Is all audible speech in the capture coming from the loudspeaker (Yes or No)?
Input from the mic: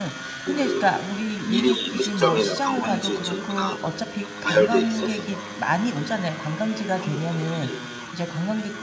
No